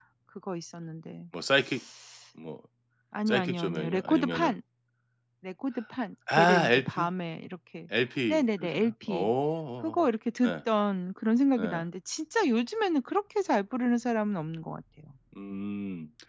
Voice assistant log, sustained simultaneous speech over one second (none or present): present